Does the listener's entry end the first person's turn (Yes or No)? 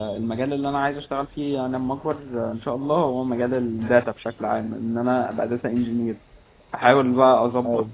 No